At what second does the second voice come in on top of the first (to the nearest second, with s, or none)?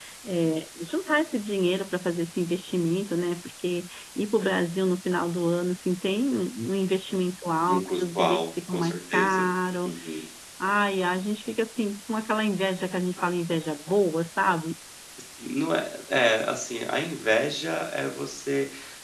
8 s